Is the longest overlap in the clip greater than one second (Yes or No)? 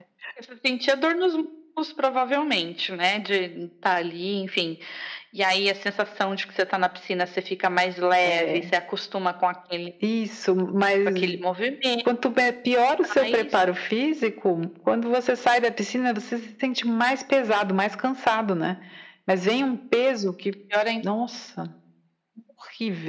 No